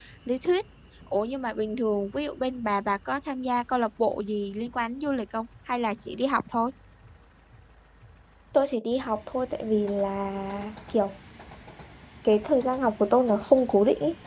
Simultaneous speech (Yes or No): No